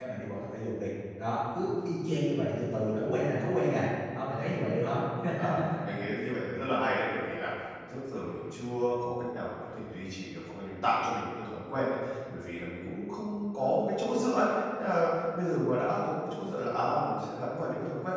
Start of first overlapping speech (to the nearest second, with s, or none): none